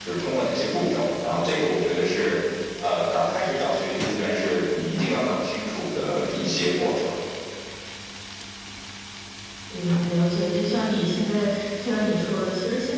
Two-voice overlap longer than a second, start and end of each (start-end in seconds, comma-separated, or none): none